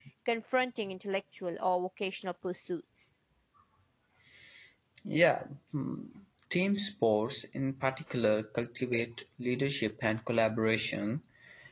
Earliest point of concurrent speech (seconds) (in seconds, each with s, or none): none